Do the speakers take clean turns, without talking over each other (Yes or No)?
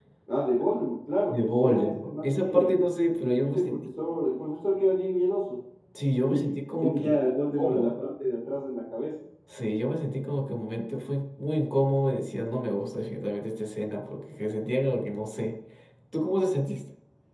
No